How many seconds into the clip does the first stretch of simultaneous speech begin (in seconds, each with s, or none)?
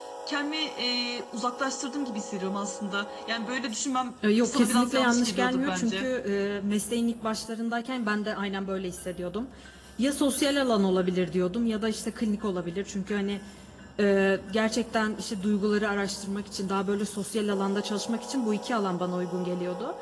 4.2 s